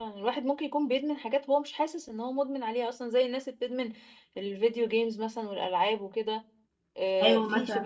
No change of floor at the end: Yes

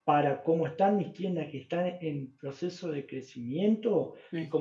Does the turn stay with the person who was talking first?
Yes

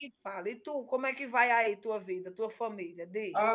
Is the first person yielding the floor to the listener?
Yes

